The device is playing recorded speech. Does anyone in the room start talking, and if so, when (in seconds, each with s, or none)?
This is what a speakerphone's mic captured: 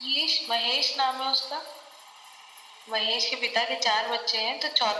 none